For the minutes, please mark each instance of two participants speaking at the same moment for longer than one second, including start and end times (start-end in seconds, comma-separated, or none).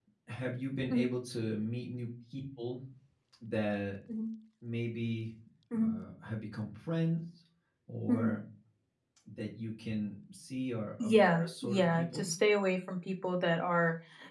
11.0-12.3